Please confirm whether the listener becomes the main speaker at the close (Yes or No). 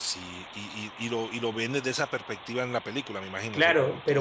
Yes